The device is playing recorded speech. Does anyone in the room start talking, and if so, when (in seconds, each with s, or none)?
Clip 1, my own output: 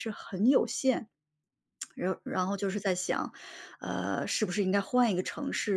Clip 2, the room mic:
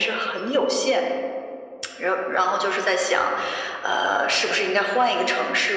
none